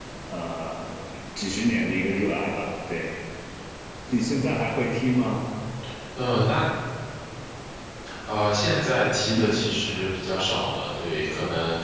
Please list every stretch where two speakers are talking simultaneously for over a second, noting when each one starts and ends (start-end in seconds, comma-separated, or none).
none